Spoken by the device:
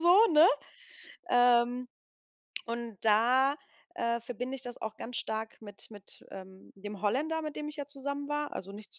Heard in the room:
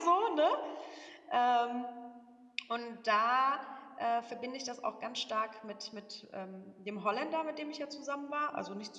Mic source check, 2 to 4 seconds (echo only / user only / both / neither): echo only